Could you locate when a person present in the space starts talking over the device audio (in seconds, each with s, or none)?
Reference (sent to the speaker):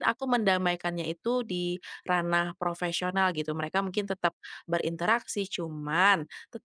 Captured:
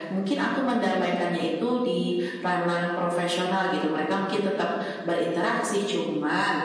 none